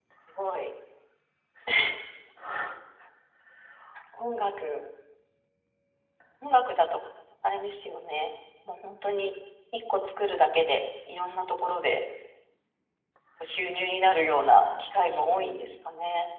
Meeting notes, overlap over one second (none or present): present